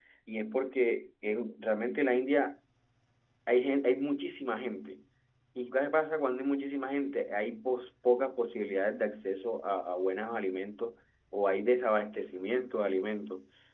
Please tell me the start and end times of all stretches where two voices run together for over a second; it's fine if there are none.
none

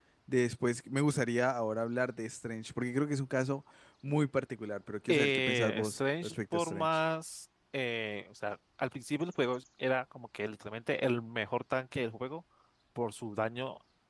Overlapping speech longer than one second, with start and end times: 5.1-6.9

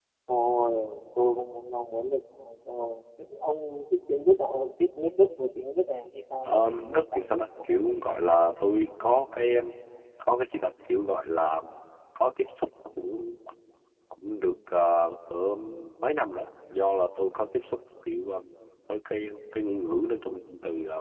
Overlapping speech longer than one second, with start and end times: 6.5-8.3

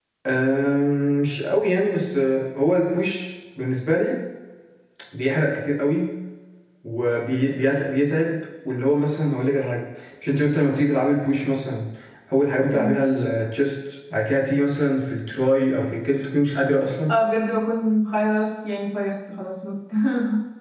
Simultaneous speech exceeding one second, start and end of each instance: none

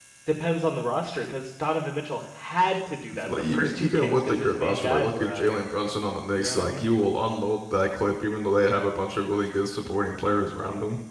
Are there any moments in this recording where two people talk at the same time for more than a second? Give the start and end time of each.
3.1-5.5

